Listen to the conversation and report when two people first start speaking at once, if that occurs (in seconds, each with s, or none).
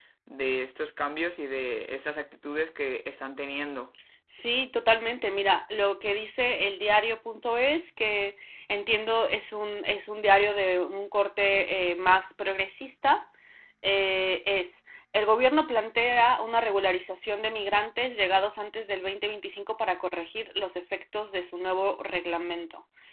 none